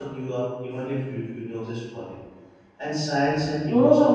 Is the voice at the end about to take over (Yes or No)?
Yes